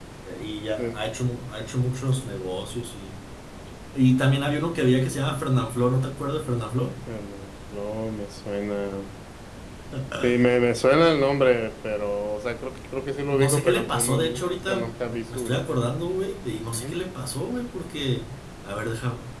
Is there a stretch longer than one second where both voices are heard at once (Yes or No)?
Yes